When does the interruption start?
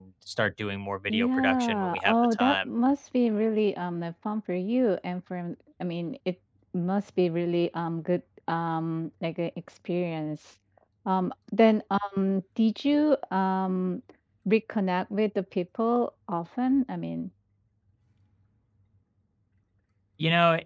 1.1 s

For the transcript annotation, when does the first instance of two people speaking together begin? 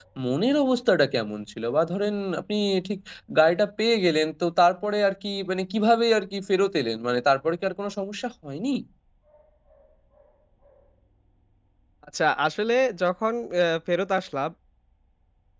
none

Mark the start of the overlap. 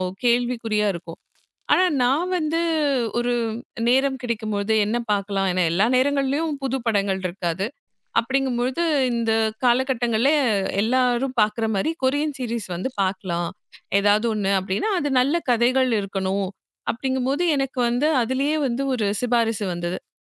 none

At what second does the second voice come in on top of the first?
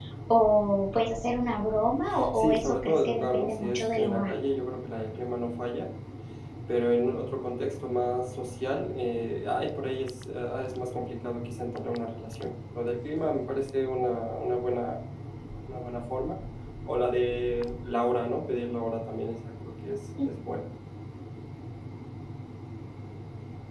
2.1 s

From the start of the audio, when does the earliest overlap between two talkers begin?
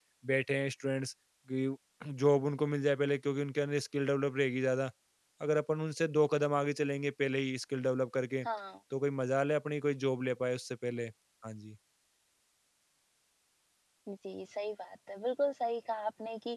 none

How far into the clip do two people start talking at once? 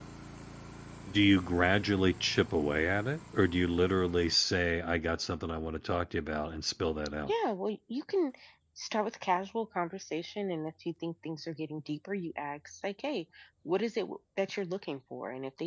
none

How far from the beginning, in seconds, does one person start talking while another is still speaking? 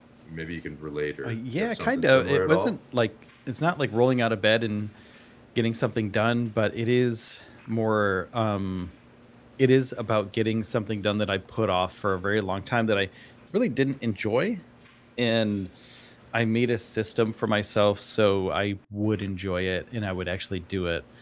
1.2 s

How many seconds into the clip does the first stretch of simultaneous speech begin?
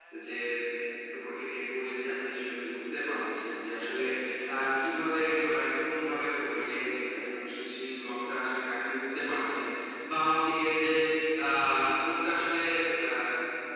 none

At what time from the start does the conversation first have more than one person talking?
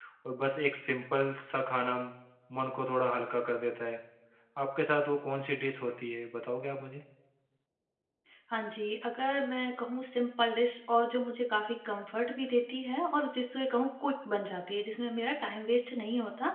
none

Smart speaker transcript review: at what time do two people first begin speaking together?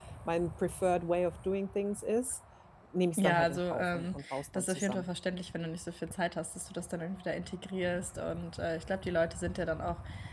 3.2 s

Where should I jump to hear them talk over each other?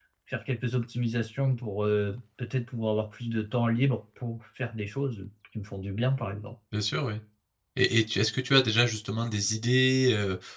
none

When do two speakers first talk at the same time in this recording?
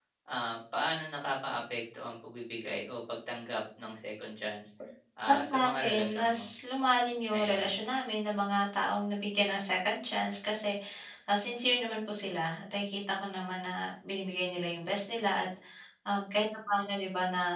5.3 s

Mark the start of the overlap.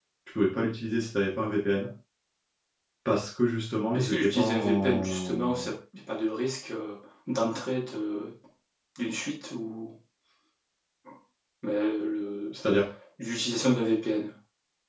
3.9 s

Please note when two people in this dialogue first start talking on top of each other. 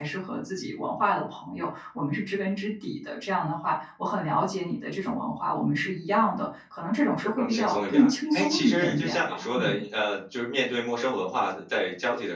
7.2 s

